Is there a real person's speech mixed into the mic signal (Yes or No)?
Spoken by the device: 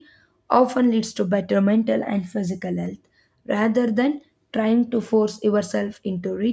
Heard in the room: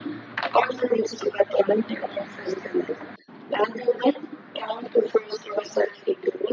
No